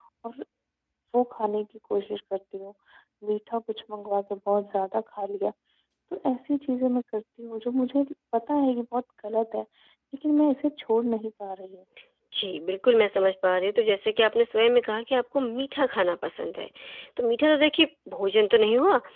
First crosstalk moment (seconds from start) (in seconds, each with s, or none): none